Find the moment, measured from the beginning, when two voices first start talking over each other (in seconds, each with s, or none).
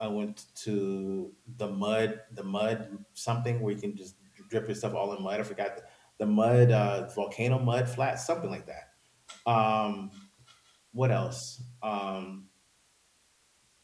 none